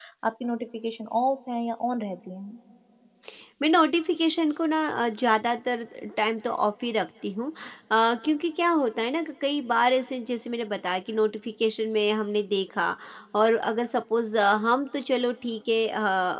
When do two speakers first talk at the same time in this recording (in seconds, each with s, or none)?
none